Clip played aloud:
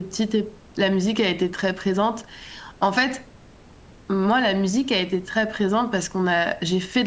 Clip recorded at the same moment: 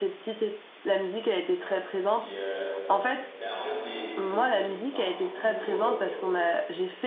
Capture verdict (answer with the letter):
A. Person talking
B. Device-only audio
A